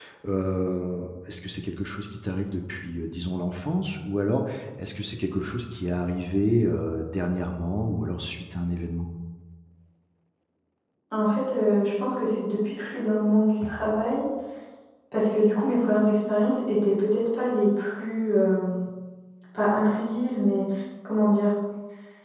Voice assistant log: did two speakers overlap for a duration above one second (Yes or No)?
No